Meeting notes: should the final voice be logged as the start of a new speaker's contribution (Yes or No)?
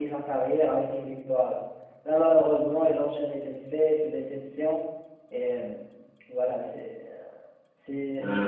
Yes